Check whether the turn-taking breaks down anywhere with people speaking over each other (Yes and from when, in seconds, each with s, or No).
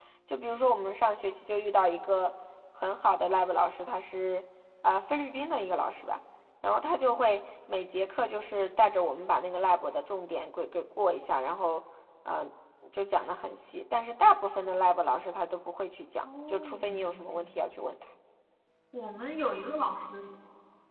Yes, from 16.2 s